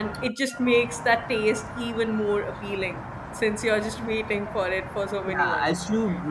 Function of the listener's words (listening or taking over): taking over